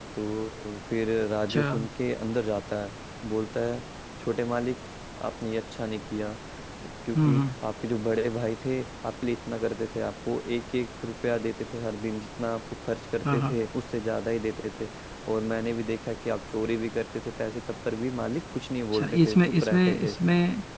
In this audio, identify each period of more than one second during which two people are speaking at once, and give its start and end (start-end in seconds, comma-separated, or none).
18.9-20.2